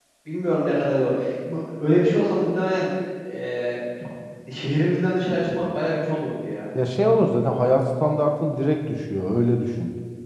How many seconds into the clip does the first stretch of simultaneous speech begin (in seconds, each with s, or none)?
none